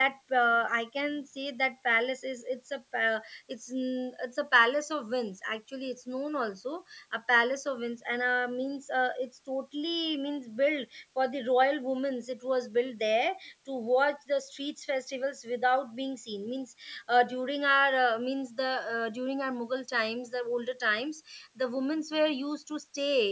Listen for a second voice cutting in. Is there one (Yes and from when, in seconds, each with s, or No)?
No